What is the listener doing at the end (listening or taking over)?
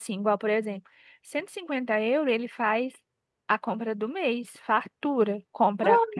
listening